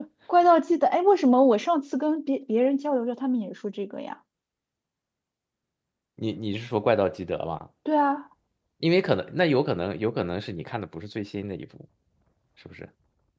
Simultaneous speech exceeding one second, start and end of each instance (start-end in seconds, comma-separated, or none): none